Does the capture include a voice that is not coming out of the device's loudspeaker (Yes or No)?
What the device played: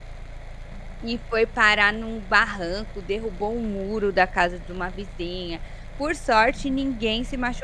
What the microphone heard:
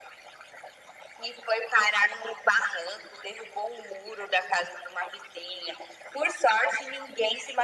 No